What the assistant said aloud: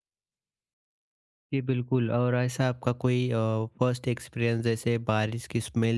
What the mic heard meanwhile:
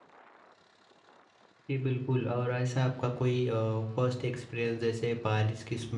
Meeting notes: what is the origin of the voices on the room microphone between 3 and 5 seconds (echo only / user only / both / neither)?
echo only